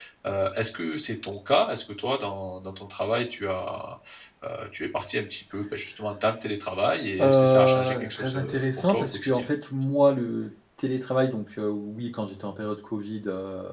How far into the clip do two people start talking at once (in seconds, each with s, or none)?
7.2 s